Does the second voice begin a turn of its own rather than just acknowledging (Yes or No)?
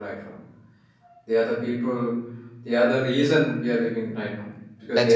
No